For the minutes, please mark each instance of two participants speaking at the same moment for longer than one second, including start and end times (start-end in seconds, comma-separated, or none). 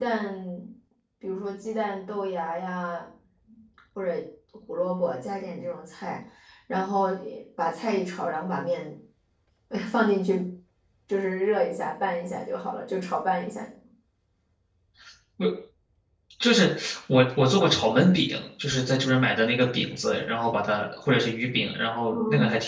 none